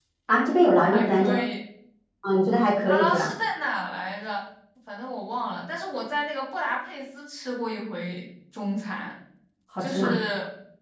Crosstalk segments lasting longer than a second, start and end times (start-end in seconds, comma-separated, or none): none